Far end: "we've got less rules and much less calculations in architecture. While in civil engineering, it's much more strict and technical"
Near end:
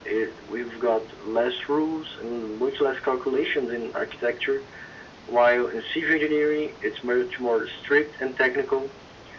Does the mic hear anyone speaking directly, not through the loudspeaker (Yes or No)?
No